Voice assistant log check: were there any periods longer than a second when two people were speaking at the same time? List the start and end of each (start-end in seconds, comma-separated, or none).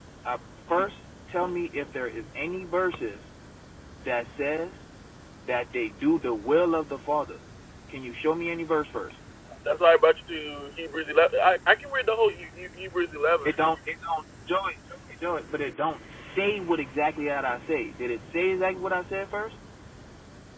none